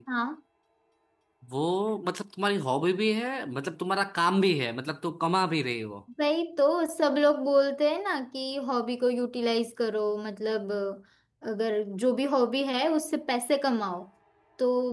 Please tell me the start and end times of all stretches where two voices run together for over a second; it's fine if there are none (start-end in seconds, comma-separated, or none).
none